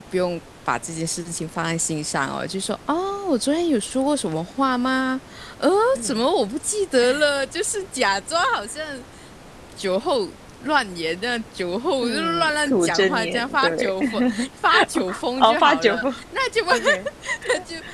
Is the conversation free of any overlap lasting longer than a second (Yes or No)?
No